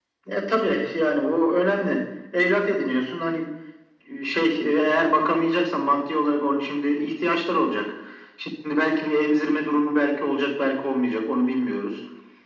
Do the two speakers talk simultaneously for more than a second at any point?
No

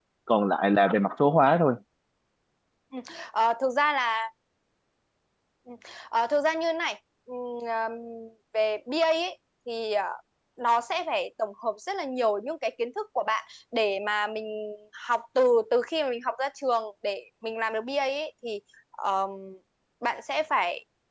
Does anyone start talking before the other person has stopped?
No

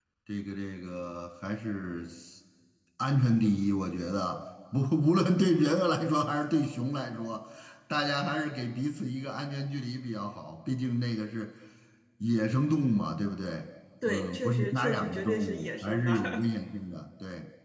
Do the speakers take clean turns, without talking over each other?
No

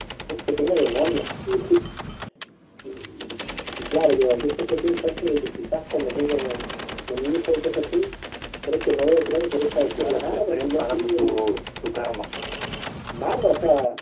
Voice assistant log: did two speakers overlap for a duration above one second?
Yes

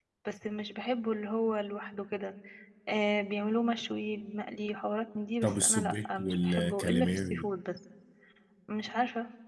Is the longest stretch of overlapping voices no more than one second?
No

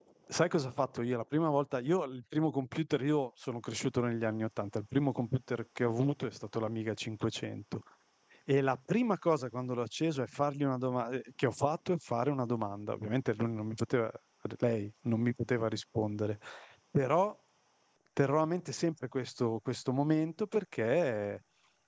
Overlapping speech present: No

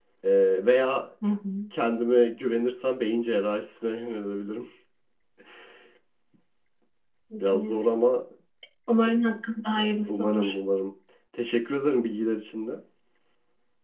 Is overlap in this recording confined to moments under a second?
Yes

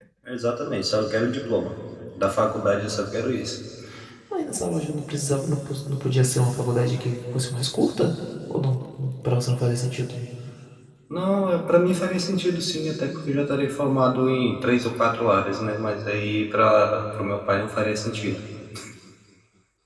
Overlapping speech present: No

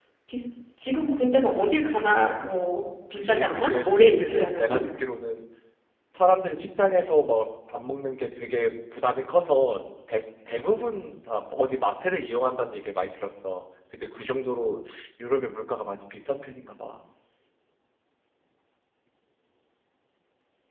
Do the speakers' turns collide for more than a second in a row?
Yes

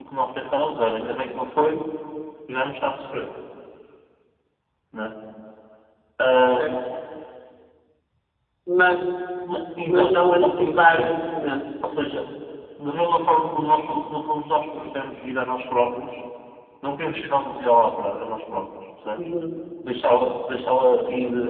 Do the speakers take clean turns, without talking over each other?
No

